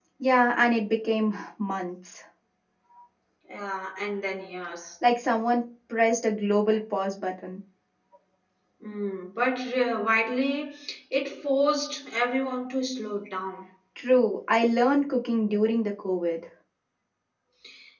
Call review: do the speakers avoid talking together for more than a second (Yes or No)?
Yes